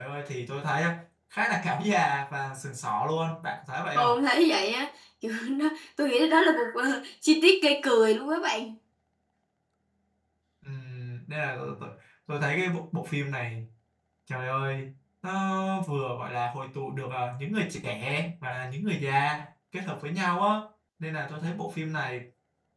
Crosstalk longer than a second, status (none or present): none